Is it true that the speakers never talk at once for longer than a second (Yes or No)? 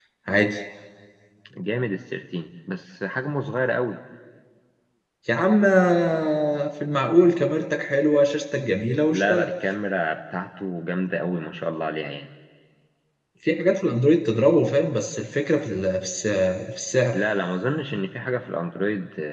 Yes